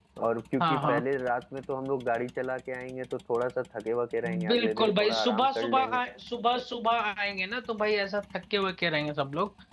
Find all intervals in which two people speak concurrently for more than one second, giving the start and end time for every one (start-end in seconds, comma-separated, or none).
4.5-6.0